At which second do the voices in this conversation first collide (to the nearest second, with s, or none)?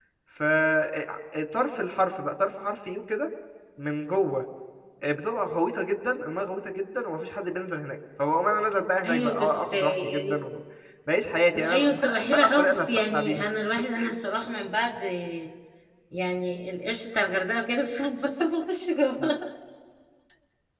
9 s